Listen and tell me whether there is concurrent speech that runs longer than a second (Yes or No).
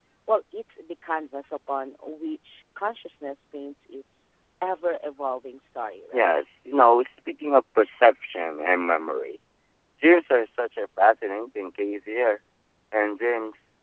No